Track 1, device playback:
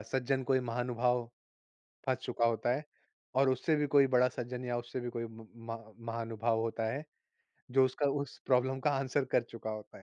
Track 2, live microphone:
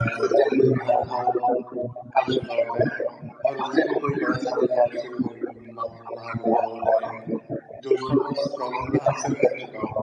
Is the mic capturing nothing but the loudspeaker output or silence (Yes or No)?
Yes